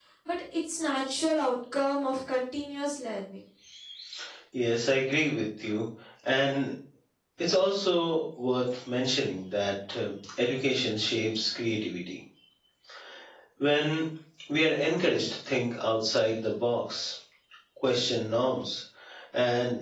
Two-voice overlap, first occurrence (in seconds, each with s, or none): none